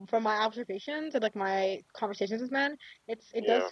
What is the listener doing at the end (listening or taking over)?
listening